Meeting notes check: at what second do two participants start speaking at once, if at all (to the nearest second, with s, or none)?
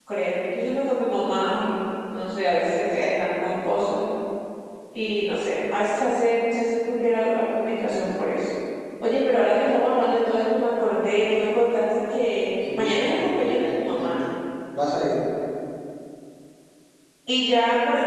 13 s